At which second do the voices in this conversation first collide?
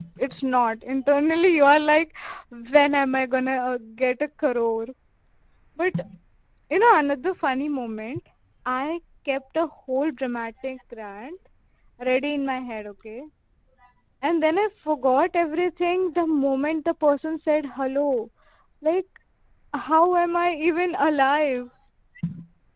none

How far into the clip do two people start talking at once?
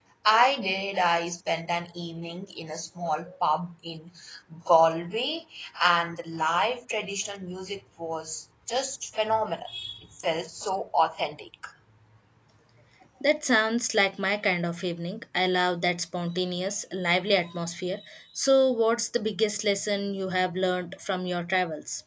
none

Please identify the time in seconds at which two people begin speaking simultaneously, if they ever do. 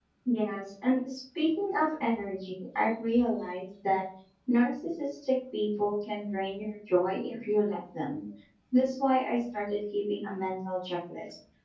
none

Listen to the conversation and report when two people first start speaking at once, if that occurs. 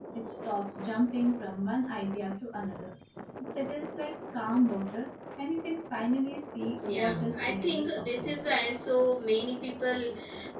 6.8 s

